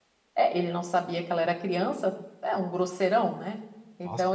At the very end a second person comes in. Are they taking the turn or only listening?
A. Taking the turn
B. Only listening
B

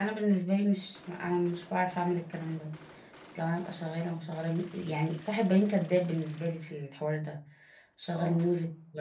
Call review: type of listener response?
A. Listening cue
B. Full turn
A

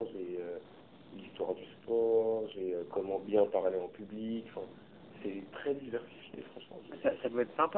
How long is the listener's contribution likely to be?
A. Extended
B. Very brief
A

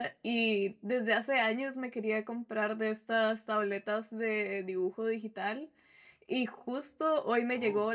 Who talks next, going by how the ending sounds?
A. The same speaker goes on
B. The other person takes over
A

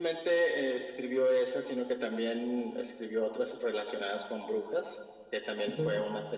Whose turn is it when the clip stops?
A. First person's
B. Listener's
A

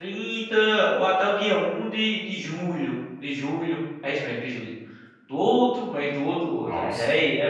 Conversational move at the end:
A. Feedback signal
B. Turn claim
B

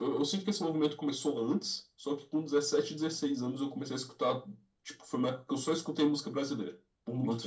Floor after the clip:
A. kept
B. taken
B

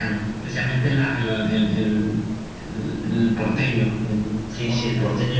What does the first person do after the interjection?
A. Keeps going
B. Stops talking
B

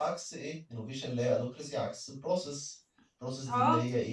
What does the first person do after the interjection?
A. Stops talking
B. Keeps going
A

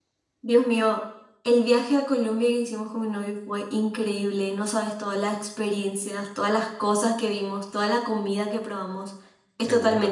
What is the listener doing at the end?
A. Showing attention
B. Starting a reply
A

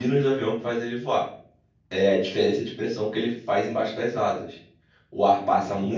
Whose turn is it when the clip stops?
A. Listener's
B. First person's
B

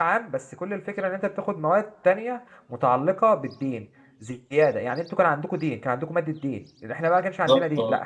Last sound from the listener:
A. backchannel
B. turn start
A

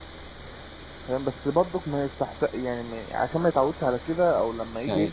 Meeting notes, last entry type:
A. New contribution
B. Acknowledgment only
B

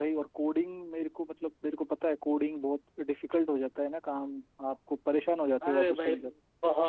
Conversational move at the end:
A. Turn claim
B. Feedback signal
A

